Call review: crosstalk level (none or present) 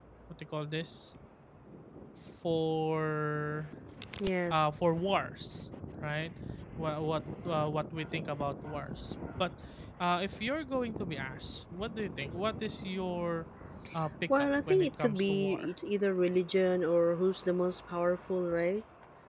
present